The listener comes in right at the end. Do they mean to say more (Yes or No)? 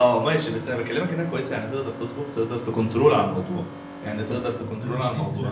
Yes